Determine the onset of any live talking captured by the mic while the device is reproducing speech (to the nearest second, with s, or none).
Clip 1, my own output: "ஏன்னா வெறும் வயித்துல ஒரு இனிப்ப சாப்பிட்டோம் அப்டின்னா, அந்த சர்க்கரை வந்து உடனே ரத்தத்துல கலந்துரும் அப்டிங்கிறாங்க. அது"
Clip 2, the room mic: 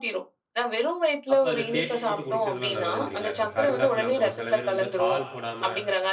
1 s